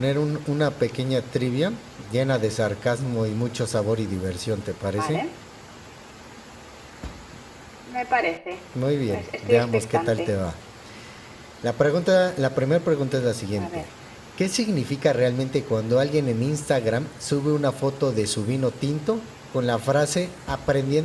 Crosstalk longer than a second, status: present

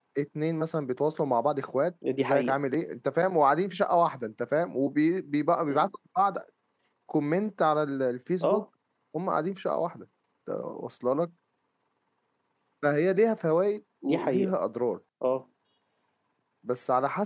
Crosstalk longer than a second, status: none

